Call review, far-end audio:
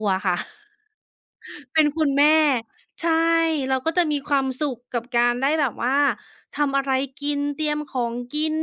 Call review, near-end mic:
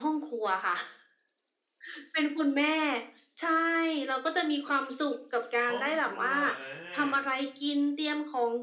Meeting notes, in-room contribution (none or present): present